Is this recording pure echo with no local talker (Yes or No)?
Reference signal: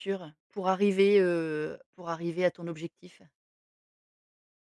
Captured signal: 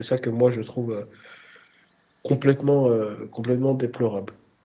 No